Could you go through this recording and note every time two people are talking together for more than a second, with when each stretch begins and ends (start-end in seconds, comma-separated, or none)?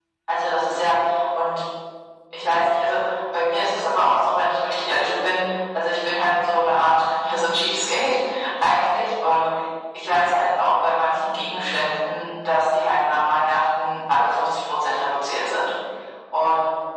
none